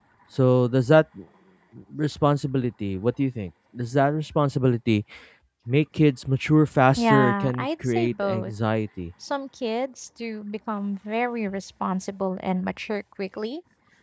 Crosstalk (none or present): present